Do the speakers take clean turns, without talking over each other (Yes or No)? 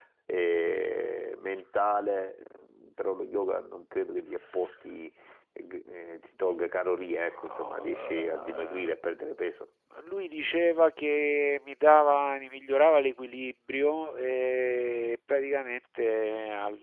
No